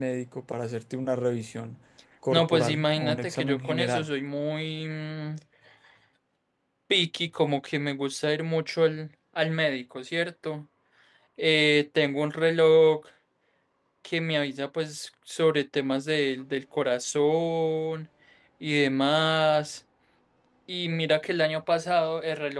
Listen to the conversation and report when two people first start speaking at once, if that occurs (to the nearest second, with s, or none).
2 s